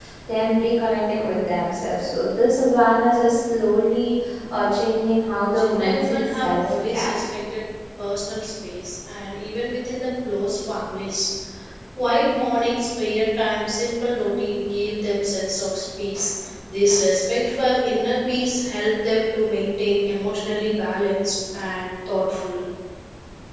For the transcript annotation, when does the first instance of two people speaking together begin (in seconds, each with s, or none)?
5.6 s